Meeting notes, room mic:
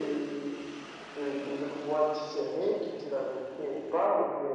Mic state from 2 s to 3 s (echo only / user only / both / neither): echo only